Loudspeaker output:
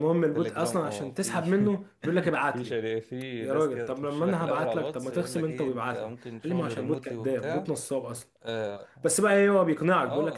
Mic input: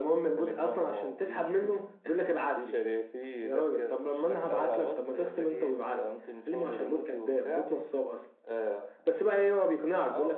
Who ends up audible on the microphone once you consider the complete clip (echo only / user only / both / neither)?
echo only